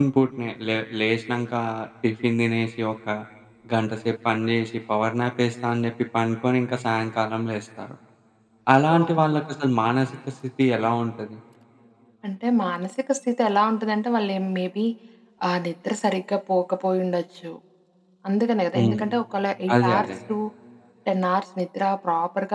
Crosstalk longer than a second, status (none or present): none